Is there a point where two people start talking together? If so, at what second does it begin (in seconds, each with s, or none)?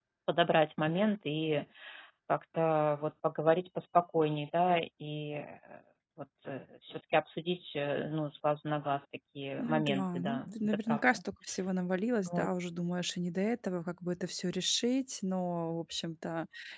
9.6 s